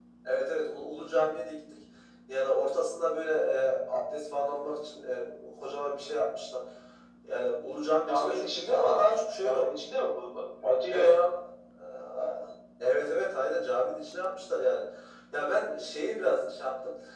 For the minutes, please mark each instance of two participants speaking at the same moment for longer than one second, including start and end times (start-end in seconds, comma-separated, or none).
8.1-9.8